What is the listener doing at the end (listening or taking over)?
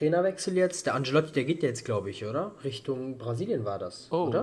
taking over